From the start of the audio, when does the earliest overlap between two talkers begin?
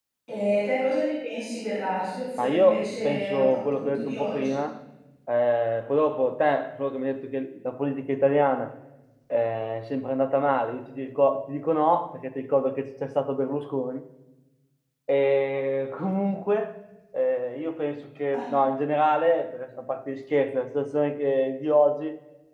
2.4 s

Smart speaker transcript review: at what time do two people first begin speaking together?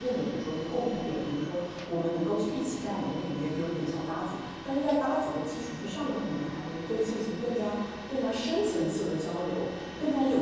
none

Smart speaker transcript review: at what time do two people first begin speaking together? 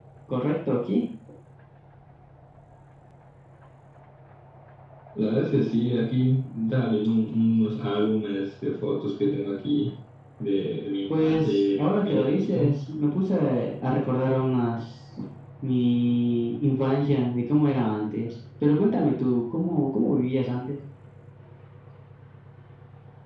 11.2 s

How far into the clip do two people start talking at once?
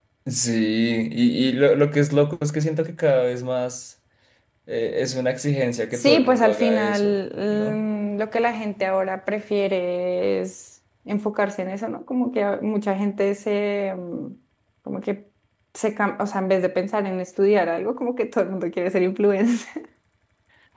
5.9 s

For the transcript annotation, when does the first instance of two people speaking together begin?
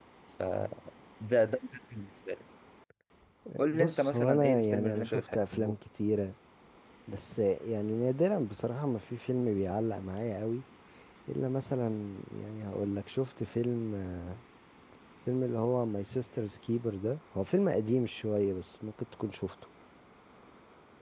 3.7 s

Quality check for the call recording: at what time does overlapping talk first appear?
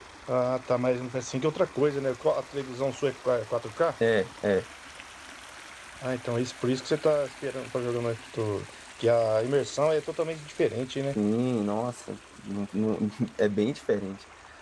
none

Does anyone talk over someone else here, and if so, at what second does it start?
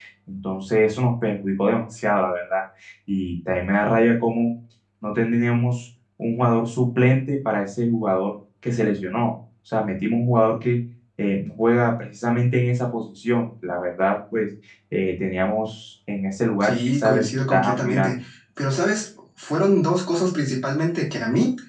16.6 s

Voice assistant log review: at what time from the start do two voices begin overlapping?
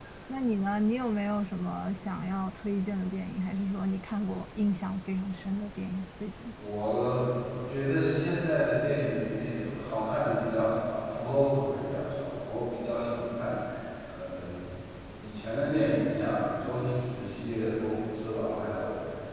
none

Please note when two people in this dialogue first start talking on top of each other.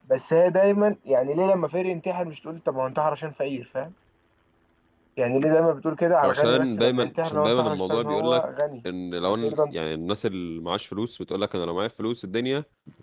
6.2 s

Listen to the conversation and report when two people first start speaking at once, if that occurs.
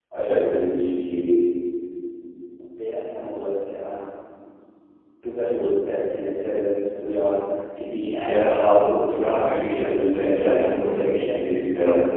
7.9 s

